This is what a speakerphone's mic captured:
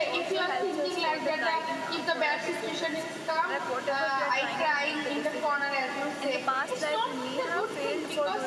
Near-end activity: present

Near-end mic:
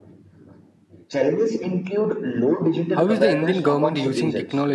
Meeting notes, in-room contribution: present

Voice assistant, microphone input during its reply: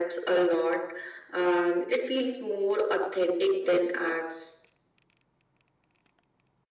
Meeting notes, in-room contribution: none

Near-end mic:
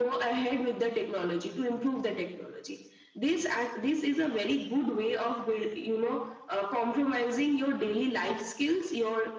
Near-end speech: none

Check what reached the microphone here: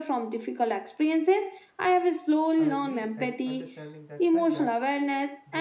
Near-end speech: present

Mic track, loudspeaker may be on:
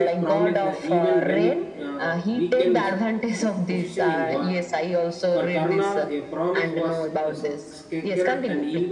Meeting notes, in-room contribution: present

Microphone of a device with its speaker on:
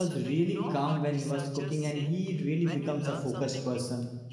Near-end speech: present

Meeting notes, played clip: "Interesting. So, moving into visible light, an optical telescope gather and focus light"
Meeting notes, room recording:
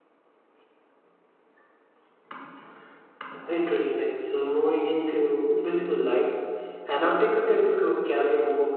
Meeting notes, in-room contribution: none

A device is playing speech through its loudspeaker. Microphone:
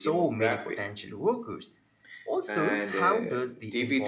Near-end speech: present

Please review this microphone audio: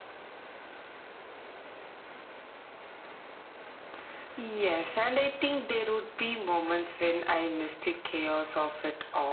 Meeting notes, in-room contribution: none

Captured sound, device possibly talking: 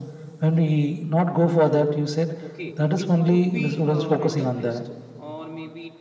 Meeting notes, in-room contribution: present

